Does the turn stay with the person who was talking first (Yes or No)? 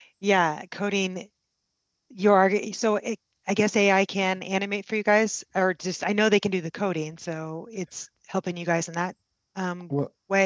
No